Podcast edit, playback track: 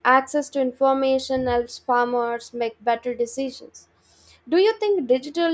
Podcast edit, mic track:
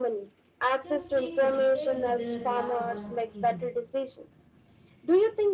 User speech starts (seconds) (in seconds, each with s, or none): 0.8 s